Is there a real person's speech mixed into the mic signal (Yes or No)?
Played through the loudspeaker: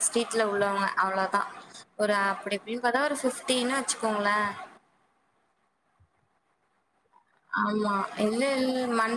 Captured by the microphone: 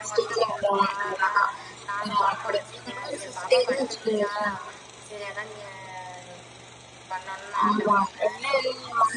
Yes